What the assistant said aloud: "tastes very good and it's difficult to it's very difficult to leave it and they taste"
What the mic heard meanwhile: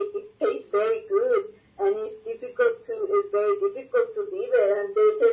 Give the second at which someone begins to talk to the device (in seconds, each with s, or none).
none